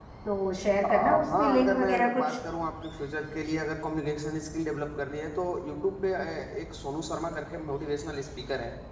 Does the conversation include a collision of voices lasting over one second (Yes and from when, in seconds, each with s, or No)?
Yes, from 0.9 s